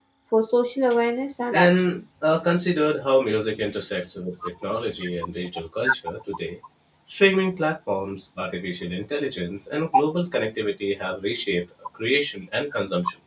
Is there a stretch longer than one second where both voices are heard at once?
No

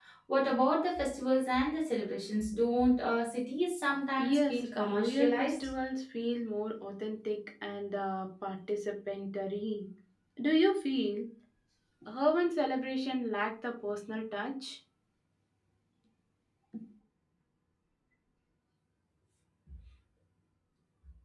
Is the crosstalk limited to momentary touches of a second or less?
No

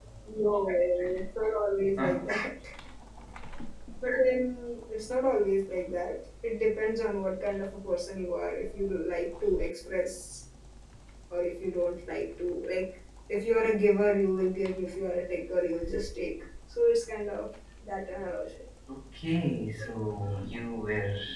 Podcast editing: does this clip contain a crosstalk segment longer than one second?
No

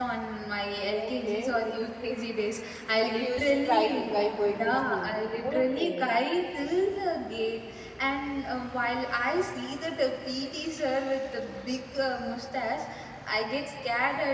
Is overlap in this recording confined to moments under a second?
No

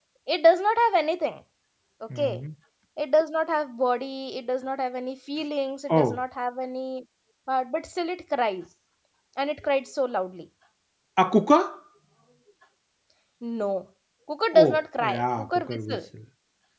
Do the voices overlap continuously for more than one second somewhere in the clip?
Yes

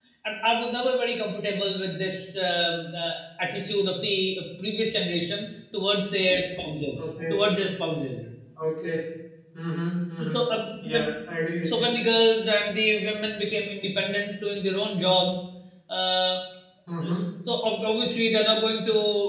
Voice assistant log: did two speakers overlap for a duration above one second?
No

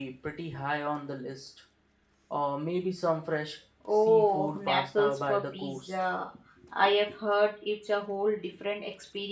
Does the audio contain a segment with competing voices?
Yes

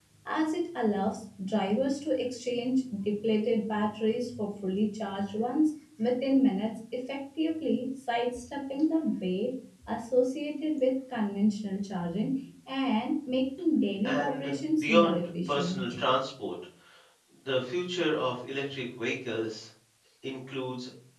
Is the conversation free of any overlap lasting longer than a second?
No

